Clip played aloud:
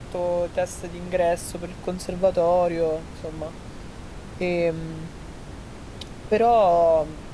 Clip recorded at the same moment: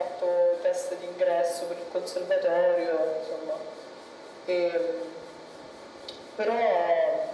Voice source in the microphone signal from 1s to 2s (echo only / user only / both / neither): echo only